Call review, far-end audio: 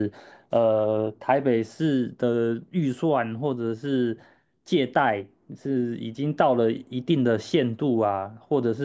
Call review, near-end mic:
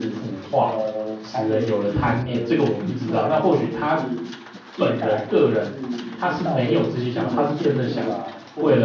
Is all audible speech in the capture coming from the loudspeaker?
No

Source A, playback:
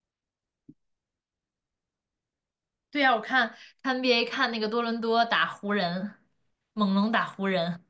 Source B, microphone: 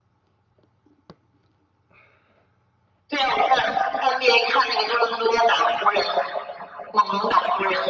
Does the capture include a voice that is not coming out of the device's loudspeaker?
No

